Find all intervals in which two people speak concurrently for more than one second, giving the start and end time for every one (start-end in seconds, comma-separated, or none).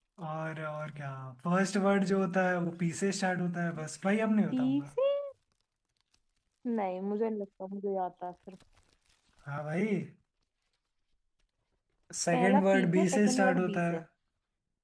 12.3-14.0